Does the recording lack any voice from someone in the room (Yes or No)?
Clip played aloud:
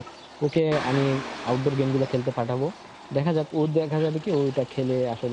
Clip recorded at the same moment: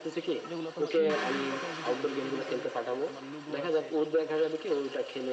No